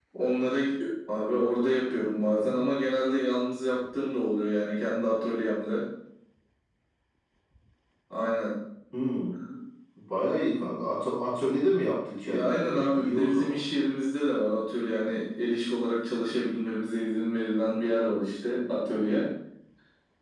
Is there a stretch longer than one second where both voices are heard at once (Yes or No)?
Yes